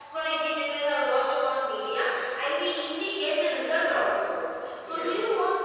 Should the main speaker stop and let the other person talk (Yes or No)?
No